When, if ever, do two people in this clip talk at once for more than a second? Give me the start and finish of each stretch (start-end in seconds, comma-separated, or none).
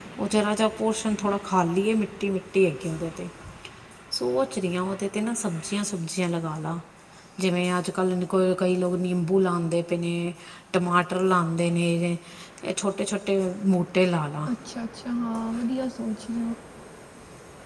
none